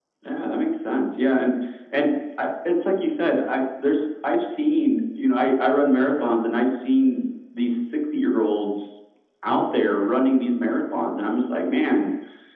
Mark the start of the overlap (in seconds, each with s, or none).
none